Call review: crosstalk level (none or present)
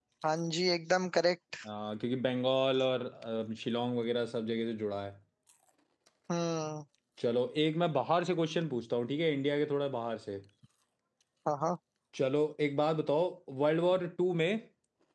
none